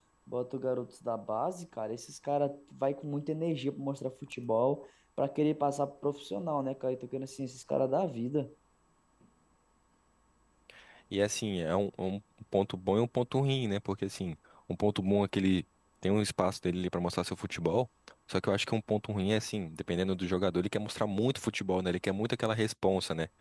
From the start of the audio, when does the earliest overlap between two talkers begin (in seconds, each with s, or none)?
none